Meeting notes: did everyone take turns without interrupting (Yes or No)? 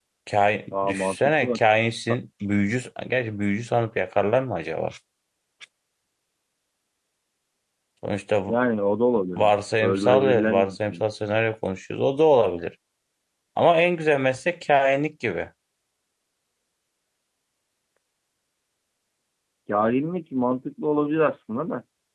No